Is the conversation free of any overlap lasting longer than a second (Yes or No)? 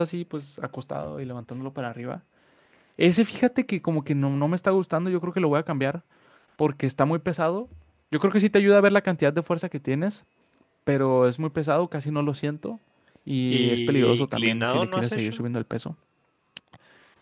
No